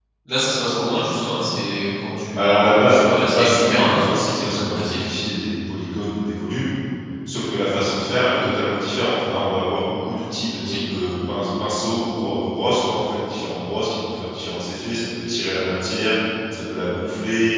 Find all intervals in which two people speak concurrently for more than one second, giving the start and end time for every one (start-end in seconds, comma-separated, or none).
2.4-5.0